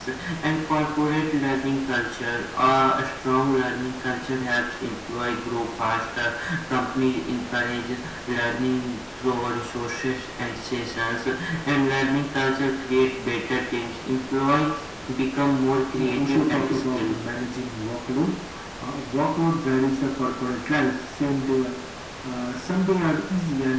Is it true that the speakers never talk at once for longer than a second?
No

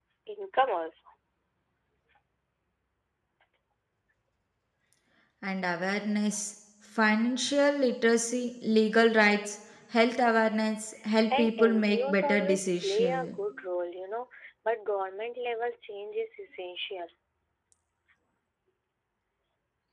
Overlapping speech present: Yes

